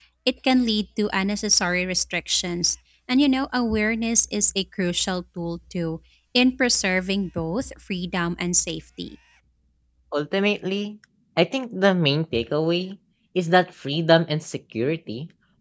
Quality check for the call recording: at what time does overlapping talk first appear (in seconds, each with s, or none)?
none